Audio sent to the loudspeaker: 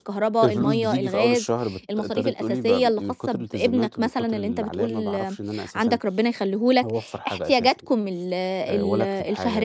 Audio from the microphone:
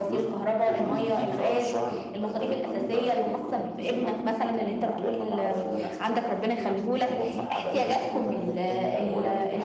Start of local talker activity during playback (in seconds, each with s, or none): 5.5 s